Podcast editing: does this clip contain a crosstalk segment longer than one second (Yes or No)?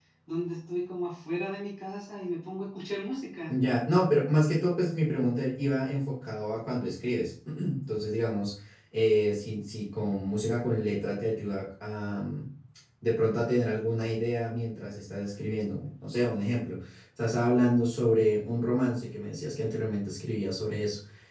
No